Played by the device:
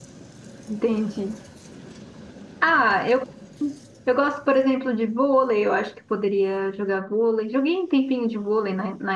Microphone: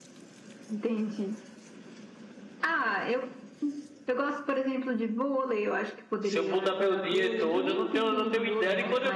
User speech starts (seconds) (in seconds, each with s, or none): 6.2 s